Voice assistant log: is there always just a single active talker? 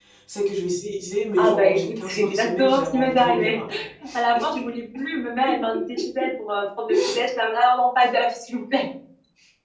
No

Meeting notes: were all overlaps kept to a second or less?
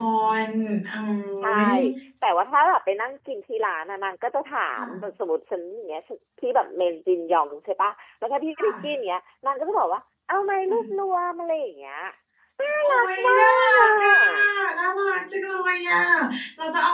No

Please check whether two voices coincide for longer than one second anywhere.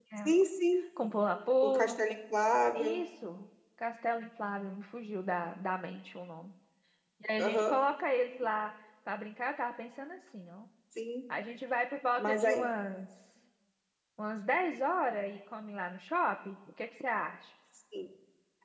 No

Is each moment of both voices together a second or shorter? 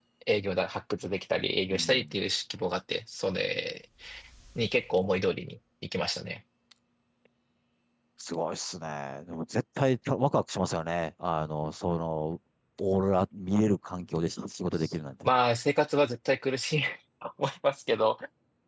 Yes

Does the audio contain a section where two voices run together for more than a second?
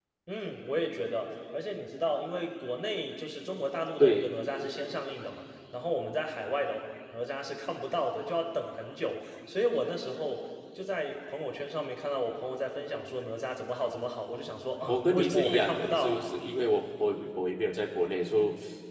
Yes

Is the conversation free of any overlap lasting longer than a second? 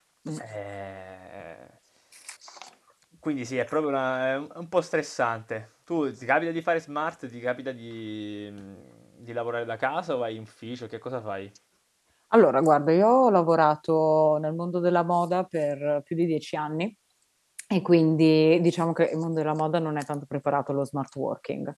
Yes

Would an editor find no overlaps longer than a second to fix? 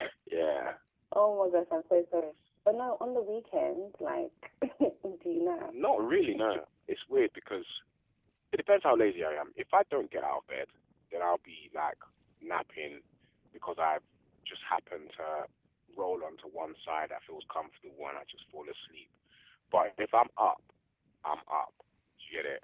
Yes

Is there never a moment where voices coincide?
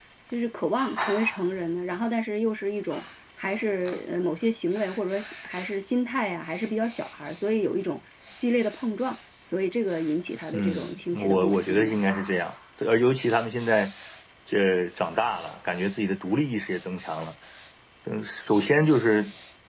No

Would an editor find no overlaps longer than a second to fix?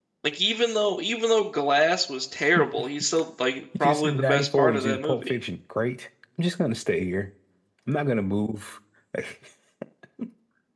No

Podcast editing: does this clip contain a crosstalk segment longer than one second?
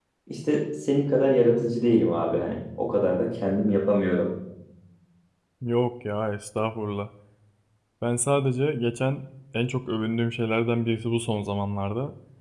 No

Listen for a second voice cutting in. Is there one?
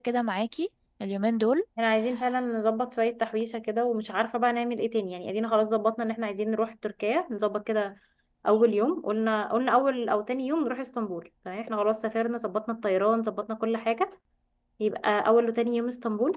No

